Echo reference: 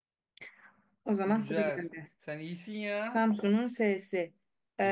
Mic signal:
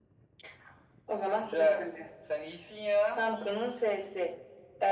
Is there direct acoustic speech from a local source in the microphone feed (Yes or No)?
No